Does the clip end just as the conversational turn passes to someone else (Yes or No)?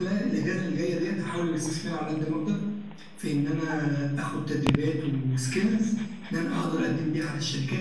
No